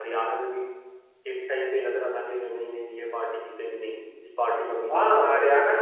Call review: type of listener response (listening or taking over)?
taking over